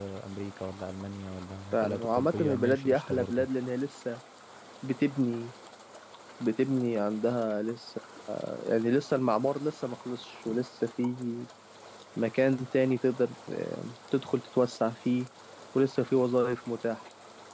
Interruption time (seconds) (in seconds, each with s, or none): 1.7 s